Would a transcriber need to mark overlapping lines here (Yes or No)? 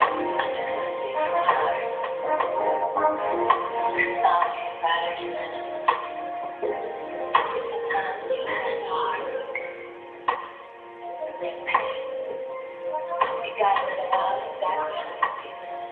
No